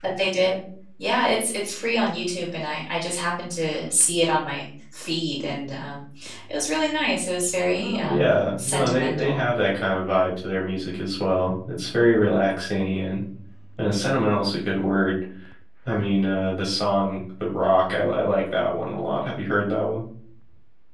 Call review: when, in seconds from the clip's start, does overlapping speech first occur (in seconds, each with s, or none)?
7.7 s